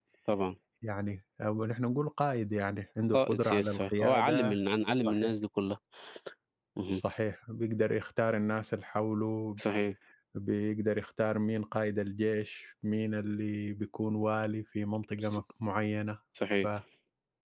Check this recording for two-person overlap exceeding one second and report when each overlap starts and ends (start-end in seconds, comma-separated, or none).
3.1-4.5